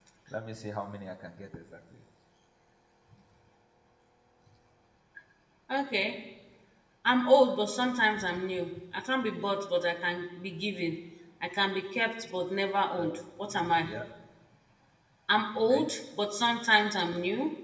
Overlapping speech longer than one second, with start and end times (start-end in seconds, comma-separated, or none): none